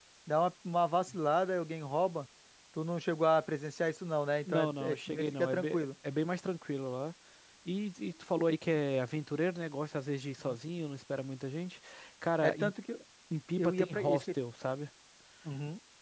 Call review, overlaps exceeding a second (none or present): present